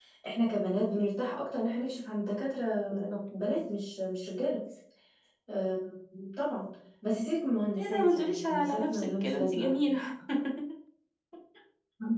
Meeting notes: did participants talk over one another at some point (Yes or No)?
Yes